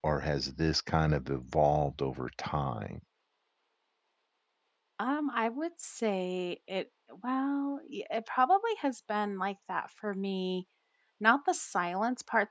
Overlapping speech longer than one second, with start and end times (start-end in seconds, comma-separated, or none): none